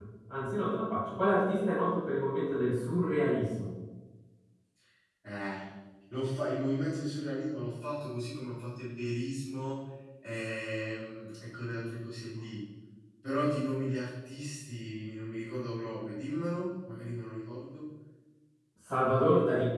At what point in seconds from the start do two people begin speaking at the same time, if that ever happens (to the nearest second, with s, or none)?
none